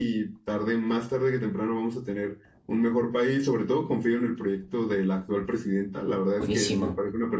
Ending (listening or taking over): listening